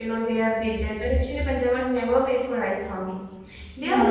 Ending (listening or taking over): taking over